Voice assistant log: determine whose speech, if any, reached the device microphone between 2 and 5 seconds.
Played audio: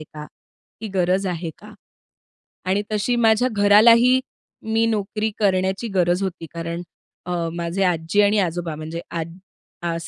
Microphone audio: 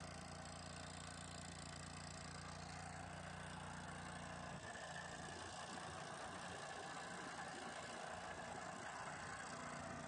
neither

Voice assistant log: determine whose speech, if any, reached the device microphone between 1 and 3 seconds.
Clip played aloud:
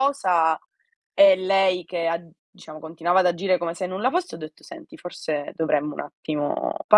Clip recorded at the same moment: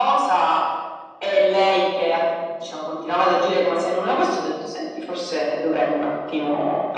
echo only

